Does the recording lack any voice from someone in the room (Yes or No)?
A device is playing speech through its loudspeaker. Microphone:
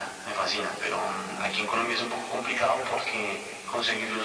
Yes